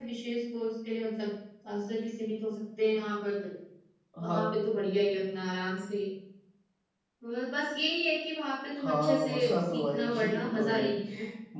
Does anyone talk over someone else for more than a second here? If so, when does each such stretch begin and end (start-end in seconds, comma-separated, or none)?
8.8-11.1